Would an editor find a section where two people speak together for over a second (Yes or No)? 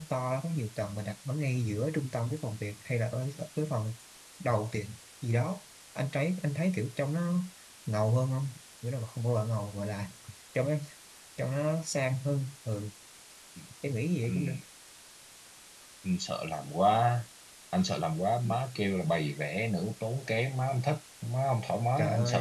No